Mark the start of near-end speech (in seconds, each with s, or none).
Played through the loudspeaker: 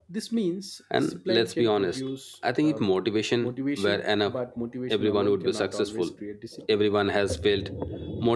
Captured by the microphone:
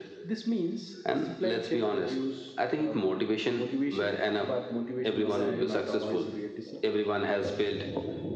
5.2 s